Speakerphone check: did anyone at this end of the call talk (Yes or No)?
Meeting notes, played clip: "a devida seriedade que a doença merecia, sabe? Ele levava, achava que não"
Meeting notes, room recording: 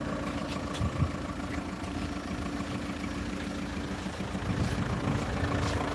No